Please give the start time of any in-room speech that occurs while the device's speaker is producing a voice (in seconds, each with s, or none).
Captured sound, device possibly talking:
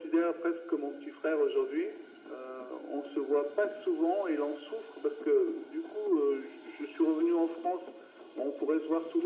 none